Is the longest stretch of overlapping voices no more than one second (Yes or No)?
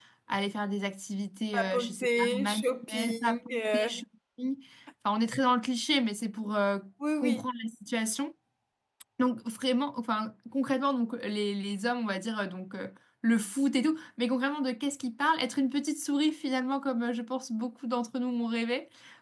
No